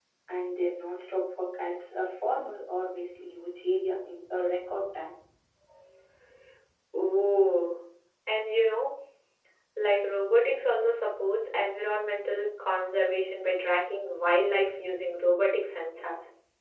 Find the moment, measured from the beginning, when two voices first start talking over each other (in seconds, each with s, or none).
none